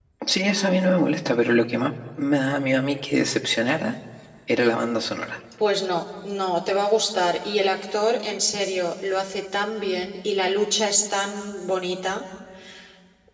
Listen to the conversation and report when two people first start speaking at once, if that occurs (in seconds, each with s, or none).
none